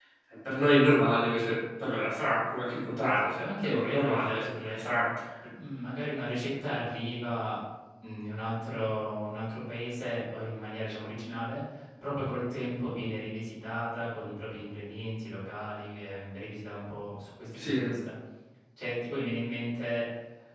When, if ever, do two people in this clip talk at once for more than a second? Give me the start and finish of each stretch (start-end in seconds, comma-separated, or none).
3.2-4.9